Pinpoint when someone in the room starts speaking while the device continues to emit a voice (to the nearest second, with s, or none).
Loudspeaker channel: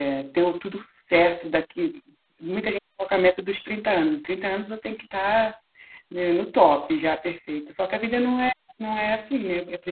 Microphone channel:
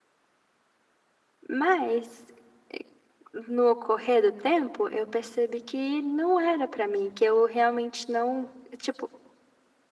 1 s